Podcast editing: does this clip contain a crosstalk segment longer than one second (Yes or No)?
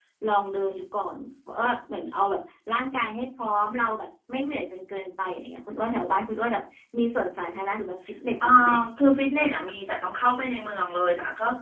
No